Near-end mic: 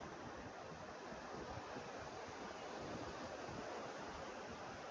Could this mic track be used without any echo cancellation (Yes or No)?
Yes